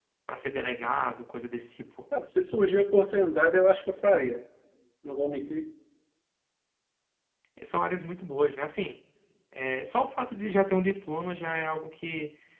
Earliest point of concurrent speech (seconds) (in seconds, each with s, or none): none